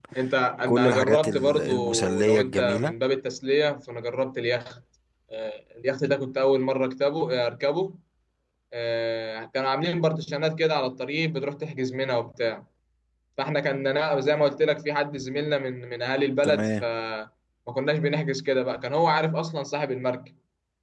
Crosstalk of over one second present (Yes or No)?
Yes